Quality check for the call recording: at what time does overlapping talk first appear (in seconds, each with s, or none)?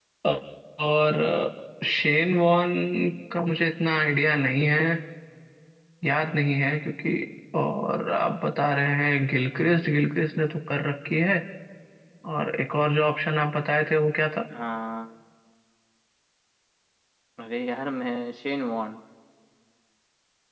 none